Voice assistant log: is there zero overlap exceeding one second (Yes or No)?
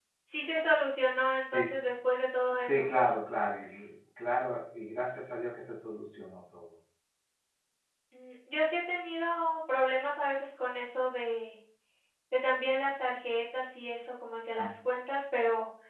Yes